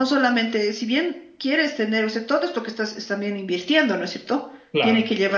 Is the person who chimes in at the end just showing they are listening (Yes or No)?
Yes